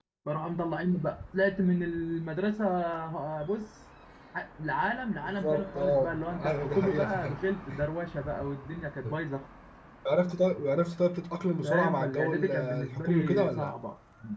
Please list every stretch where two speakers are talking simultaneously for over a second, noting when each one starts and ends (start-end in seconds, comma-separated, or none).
5.2-7.4, 11.6-13.7